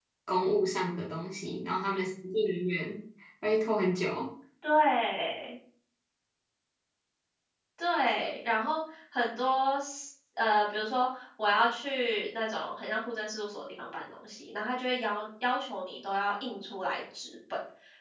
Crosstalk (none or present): none